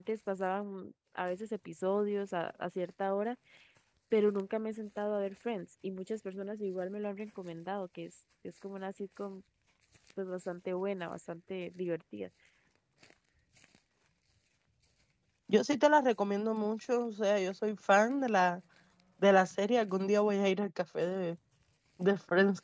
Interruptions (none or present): none